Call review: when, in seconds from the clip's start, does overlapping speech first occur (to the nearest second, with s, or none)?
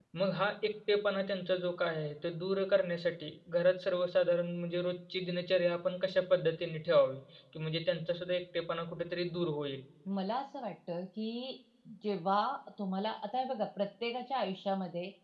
none